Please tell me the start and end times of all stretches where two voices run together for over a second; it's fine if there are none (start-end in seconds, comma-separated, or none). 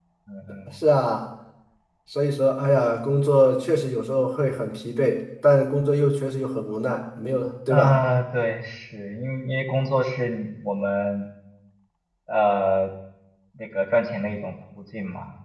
none